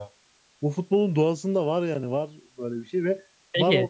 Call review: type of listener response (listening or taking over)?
listening